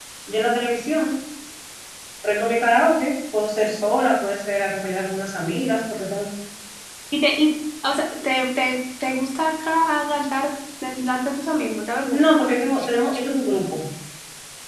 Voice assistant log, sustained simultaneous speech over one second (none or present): none